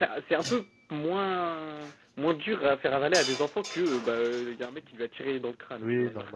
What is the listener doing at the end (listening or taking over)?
taking over